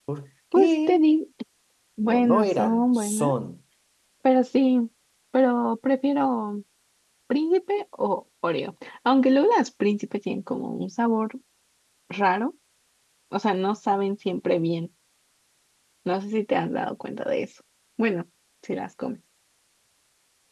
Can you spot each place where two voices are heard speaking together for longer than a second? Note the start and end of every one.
2.0-3.3

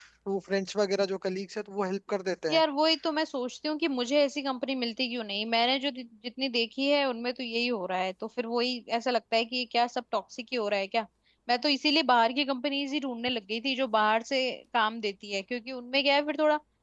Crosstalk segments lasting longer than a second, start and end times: none

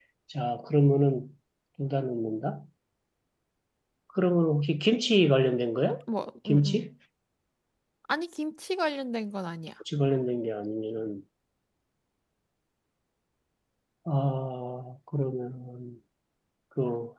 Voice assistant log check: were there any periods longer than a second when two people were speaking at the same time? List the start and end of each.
none

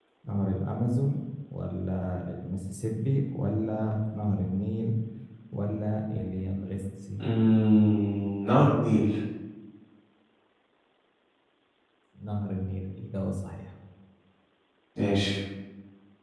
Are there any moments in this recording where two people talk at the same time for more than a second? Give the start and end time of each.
none

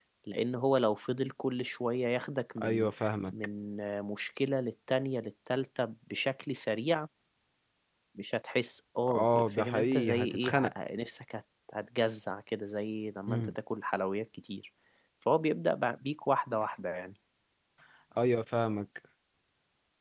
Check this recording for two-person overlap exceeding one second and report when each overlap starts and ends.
9.1-10.7

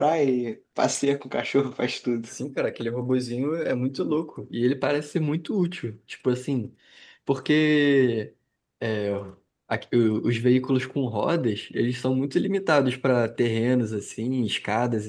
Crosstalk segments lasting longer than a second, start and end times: none

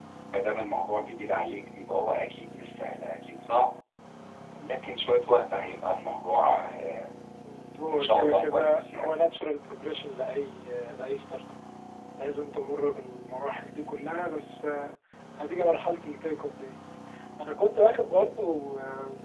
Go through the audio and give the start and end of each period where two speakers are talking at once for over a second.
7.9-9.1

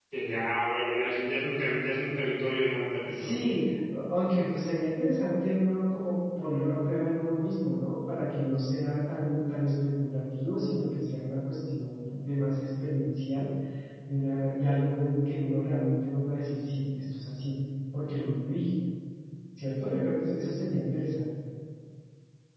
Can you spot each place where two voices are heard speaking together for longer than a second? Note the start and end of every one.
none

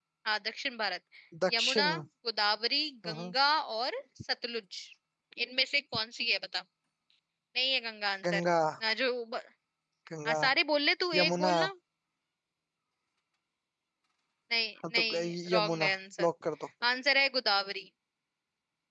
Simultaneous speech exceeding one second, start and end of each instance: 14.9-16.3

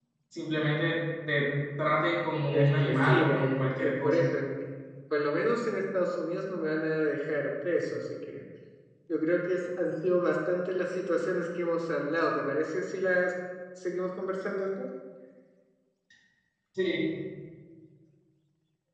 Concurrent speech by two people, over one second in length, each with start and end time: 2.5-4.2

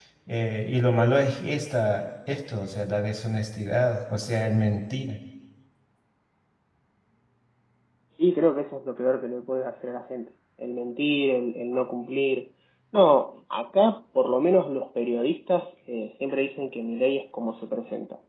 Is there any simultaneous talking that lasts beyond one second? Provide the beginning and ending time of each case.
none

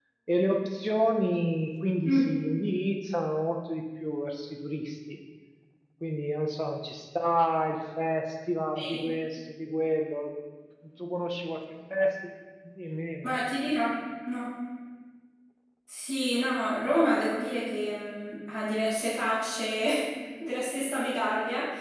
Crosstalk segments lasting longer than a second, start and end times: none

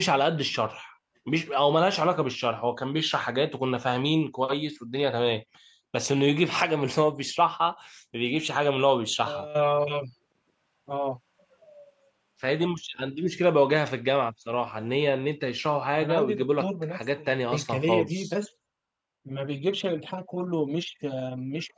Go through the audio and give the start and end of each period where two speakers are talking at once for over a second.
16.0-18.3

